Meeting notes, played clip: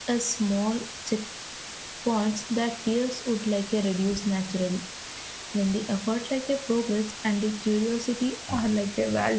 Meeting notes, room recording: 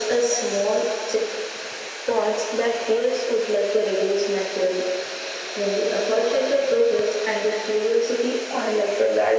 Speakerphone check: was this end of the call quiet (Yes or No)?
Yes